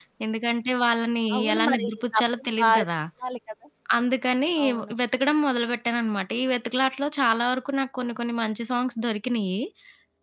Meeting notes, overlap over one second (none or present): present